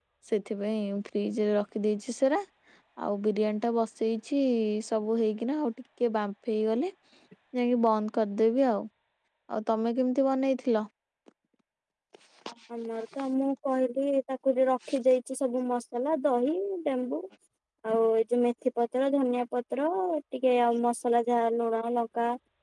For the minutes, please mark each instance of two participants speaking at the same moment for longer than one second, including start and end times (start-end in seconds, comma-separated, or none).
none